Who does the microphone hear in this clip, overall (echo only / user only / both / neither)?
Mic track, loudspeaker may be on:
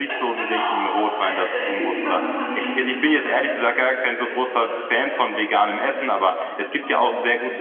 both